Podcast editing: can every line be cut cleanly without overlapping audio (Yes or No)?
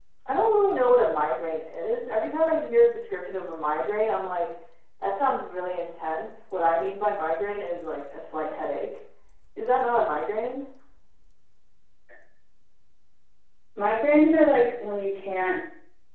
Yes